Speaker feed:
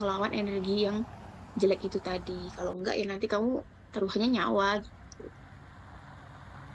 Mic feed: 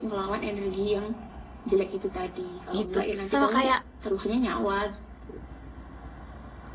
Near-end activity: present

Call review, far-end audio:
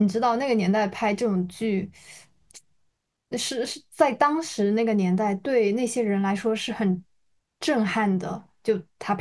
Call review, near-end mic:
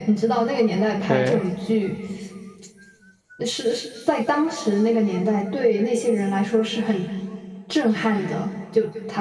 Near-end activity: present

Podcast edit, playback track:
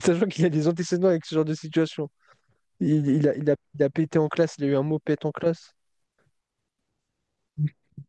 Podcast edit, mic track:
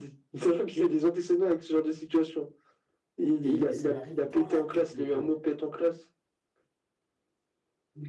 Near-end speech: present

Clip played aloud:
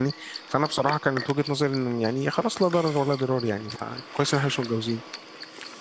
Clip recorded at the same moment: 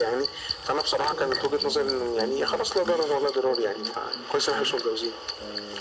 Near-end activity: present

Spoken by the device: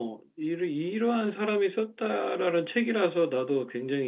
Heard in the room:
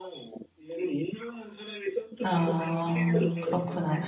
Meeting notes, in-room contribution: present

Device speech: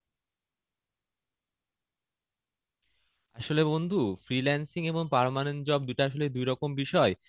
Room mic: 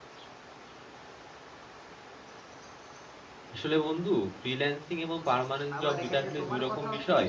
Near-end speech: present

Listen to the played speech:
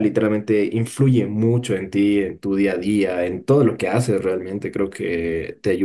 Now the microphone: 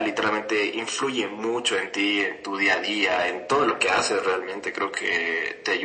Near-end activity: none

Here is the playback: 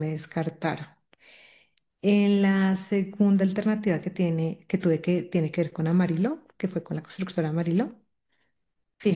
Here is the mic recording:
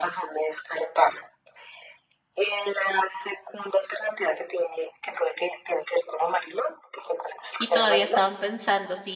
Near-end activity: present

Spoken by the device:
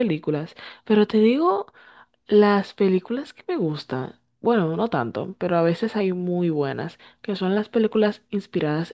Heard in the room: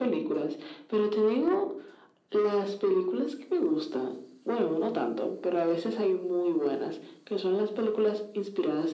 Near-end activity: none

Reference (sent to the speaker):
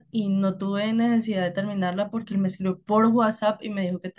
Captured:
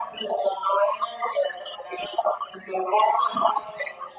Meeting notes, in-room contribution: none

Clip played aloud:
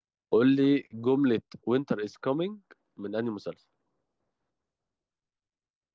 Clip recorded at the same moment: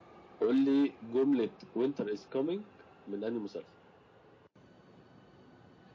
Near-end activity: none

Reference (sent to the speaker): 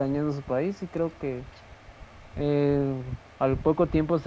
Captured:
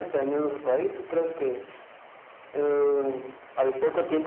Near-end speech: none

